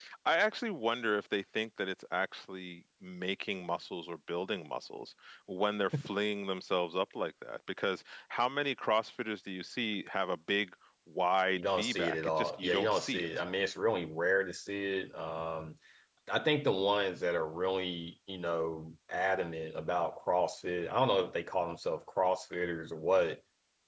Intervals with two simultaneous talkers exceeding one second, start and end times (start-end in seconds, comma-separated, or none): 11.6-13.3